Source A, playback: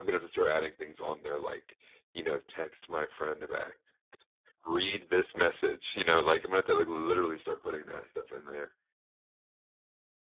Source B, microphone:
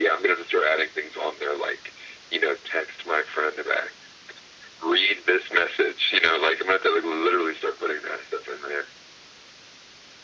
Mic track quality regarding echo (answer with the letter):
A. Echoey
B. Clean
A